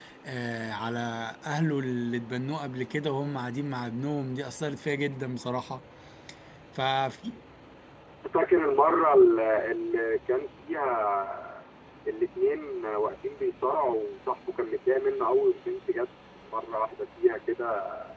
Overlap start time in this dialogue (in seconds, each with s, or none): none